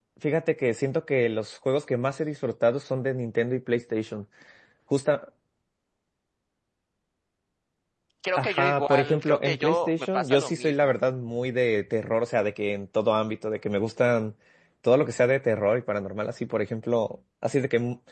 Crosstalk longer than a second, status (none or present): present